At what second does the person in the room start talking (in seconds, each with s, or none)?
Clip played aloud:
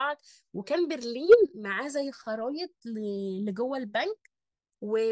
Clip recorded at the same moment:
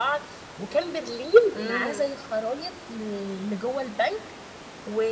1.5 s